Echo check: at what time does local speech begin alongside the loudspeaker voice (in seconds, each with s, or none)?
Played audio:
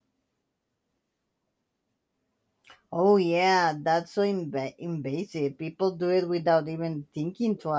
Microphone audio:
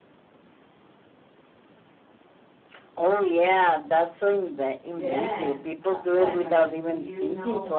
4.9 s